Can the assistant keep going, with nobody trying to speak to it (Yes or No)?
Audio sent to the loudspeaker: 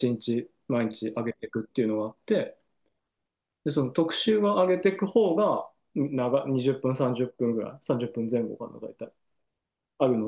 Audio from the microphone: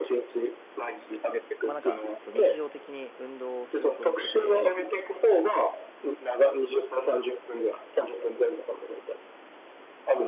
No